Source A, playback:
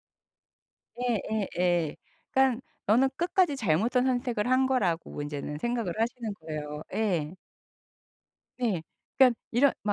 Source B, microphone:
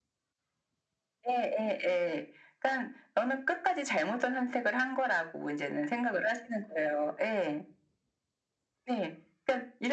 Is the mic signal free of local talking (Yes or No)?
Yes